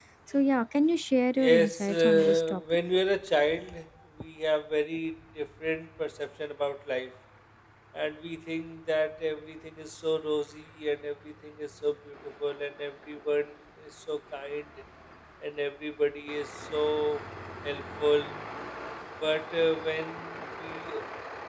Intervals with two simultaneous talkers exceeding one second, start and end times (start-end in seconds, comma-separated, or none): 1.4-2.6